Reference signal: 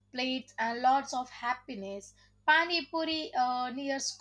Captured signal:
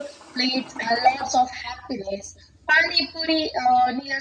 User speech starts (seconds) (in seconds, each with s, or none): none